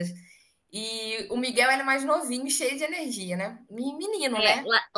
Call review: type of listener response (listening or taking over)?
taking over